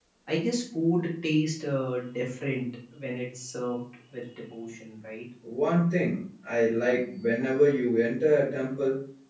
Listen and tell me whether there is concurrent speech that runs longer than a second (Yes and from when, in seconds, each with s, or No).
No